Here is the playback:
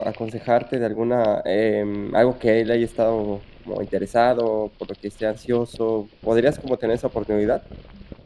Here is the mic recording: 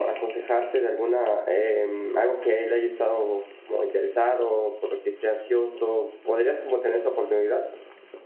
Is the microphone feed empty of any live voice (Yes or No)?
Yes